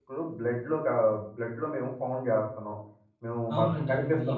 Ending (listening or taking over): taking over